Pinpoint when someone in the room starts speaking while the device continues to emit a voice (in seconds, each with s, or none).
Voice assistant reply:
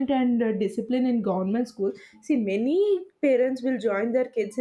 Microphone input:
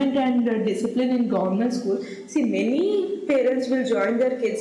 none